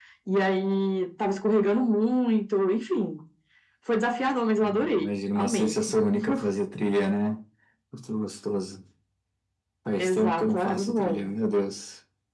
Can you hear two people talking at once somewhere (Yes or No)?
Yes